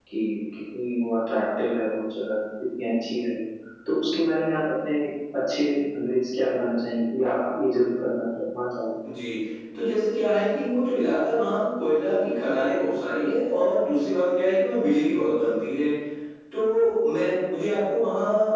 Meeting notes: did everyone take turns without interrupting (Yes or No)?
Yes